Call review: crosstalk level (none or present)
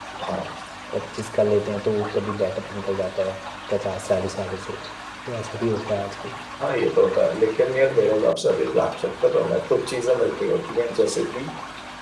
none